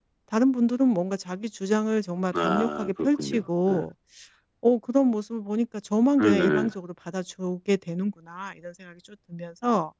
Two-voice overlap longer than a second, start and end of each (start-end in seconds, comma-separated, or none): 2.4-3.8